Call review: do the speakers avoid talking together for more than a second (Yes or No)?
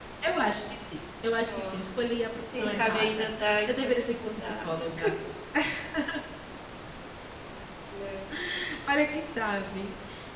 No